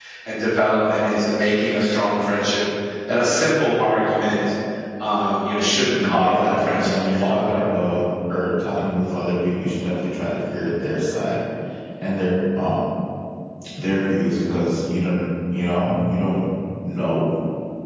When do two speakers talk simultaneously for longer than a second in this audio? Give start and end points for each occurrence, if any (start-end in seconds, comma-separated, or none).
5.9-7.7